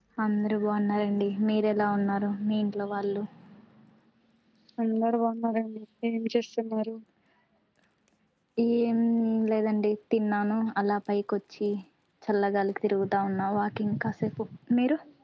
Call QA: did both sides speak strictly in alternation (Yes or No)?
Yes